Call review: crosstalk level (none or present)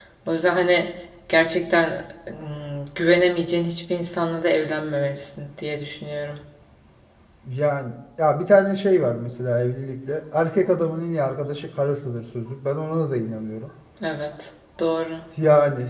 none